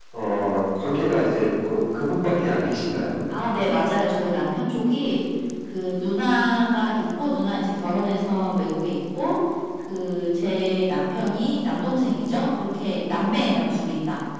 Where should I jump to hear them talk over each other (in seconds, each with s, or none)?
none